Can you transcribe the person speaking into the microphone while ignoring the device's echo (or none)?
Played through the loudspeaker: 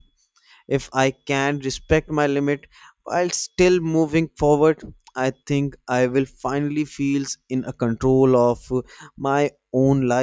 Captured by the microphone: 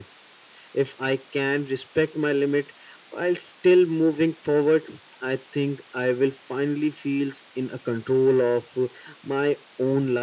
none